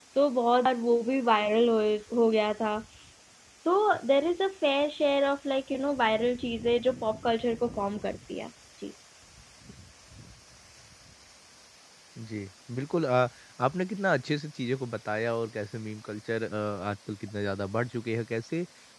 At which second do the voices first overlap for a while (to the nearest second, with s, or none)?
none